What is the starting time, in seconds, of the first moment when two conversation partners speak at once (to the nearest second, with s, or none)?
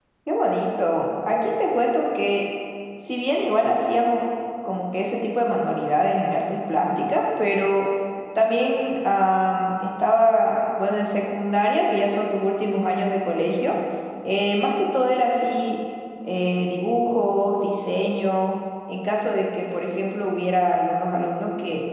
none